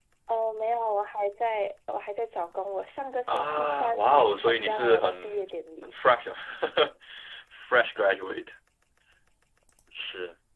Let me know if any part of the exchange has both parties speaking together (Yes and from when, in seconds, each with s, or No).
Yes, from 3.3 s